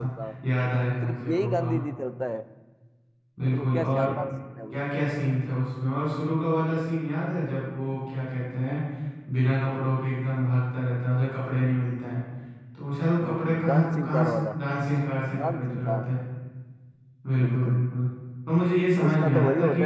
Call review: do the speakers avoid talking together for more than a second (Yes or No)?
No